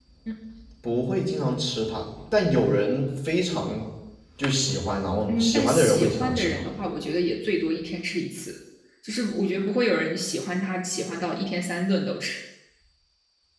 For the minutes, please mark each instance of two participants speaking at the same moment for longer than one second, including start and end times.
5.3-6.6

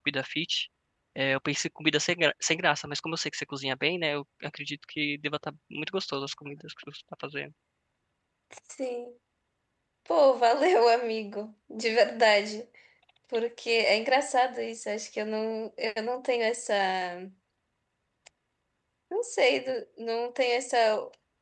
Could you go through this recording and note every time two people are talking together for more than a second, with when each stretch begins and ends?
none

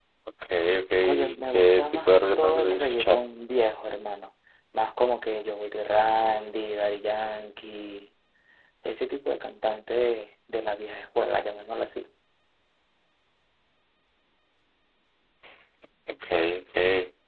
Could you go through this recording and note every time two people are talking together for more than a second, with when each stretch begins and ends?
1.0-3.2

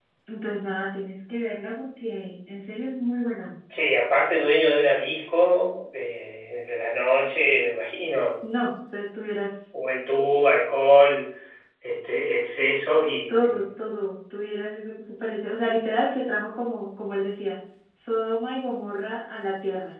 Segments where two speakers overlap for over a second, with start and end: none

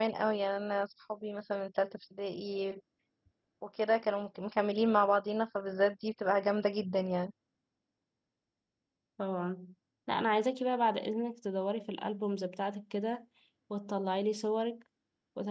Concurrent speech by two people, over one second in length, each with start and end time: none

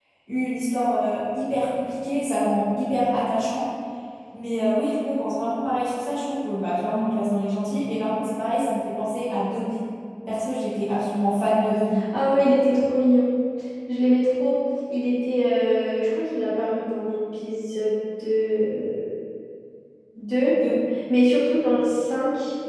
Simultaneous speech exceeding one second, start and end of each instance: none

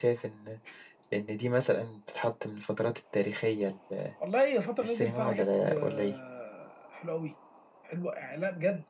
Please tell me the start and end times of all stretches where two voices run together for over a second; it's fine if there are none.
4.8-6.1

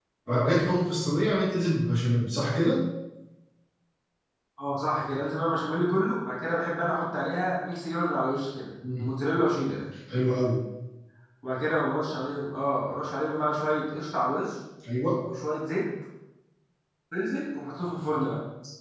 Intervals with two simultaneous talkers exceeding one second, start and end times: none

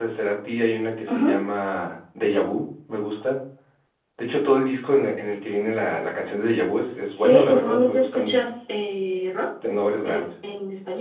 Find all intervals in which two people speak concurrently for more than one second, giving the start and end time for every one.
7.2-8.4

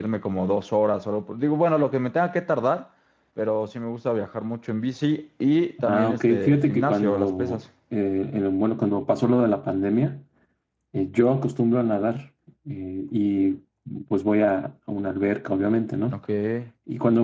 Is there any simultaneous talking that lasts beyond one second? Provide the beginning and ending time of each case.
5.8-7.6

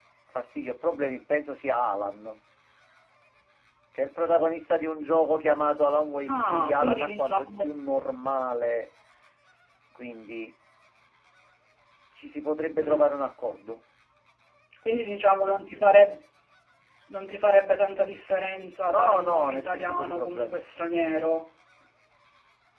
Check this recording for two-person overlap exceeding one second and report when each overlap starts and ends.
6.3-7.8, 18.9-20.6

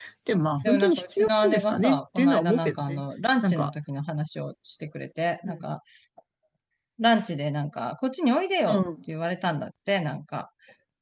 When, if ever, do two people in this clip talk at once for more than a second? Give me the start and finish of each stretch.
0.6-3.0

